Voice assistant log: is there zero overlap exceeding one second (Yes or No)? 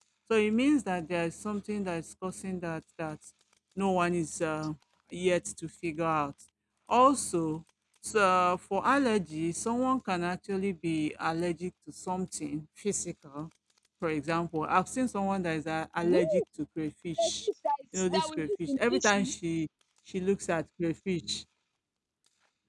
No